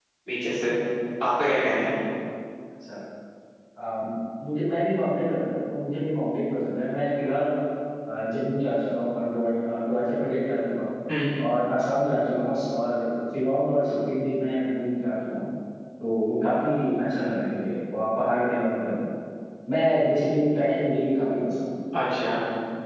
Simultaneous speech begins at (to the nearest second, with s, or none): none